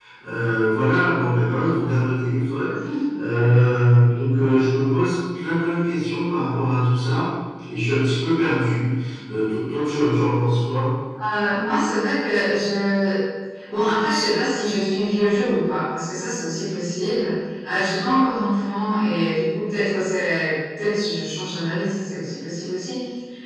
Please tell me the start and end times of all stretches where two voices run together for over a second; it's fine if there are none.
none

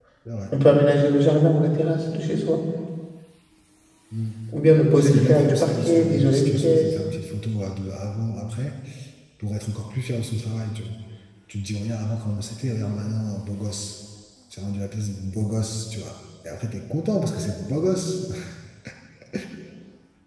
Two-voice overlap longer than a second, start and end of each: 5.0-6.9

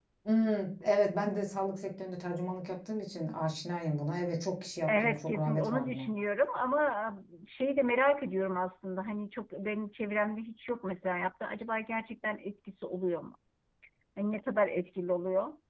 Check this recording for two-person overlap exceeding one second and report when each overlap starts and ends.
4.9-6.1

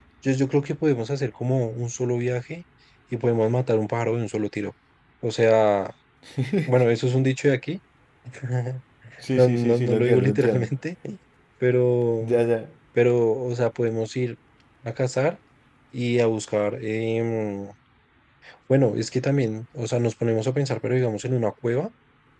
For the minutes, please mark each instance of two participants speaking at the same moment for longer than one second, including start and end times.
9.3-10.7

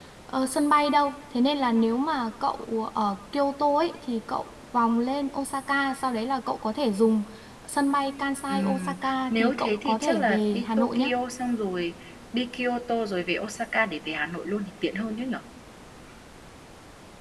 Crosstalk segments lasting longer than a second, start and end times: 8.5-11.1

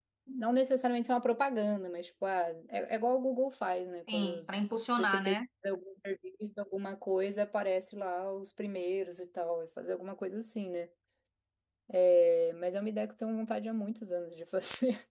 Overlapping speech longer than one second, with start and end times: none

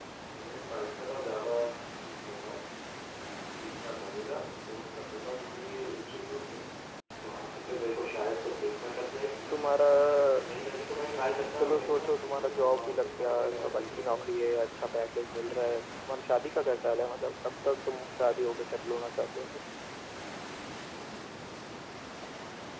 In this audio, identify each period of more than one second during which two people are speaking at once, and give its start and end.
11.6-14.2

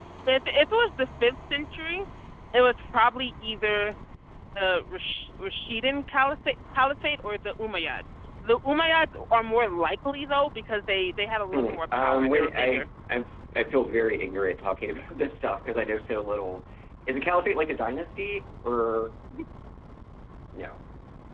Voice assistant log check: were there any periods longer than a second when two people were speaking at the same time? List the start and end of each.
11.5-12.9

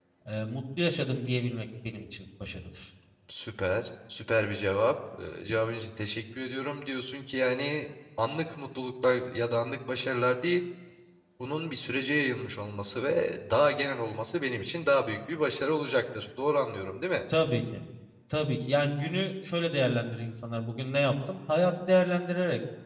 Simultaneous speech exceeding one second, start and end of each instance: none

